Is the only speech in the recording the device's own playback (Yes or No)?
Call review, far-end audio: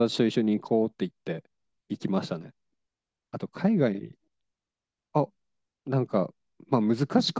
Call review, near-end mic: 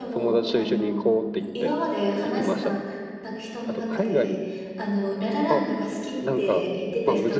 No